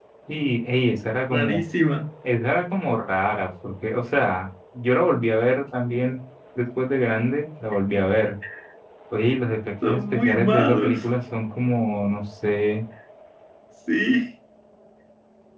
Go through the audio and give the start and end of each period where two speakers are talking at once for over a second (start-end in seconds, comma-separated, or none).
9.8-11.1